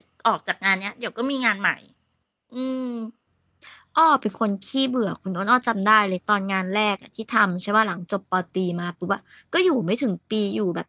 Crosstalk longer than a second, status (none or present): none